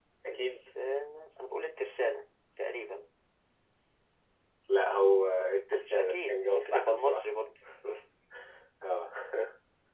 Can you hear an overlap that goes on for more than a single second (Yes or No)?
Yes